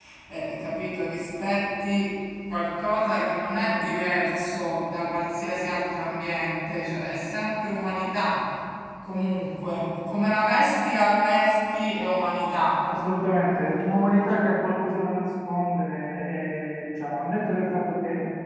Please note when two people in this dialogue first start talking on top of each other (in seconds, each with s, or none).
none